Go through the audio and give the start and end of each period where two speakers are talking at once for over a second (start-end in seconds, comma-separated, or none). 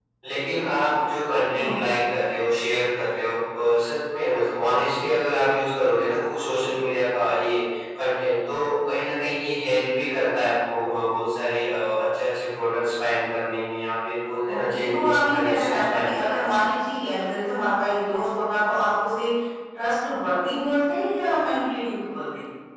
14.5-16.5